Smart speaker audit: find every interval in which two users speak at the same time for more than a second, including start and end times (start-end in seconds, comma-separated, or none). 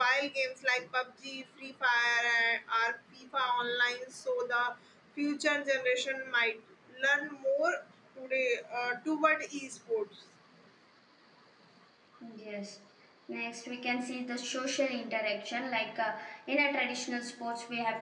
none